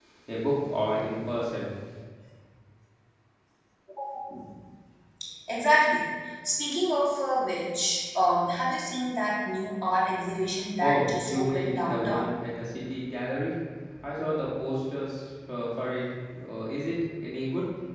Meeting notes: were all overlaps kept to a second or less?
No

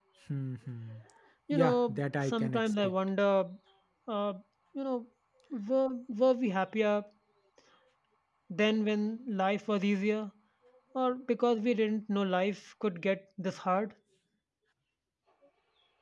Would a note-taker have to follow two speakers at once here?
Yes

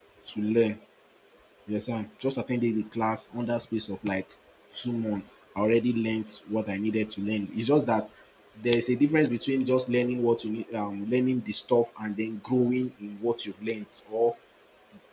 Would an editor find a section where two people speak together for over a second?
No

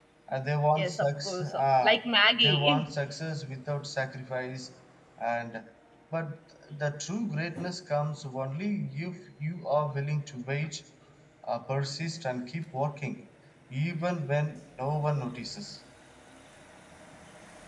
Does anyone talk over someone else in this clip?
Yes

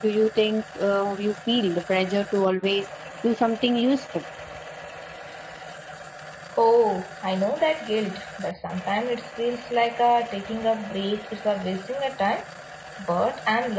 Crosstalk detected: No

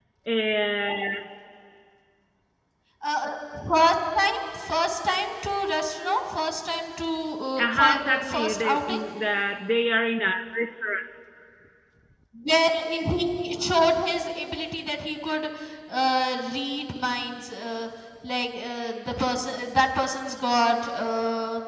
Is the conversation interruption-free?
No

